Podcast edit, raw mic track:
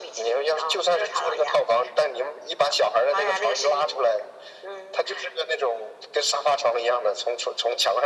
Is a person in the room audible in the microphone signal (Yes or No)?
No